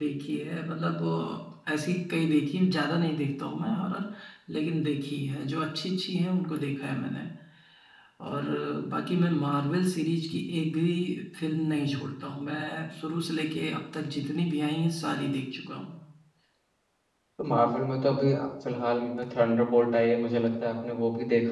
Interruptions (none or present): none